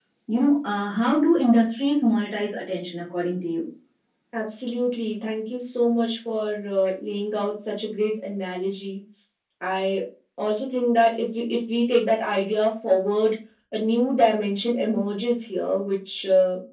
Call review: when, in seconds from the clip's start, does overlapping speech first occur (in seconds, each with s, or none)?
none